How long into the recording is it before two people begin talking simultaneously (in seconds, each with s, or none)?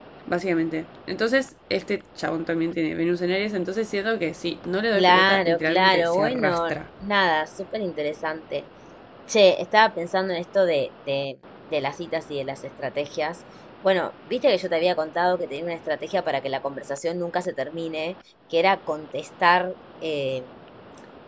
4.9 s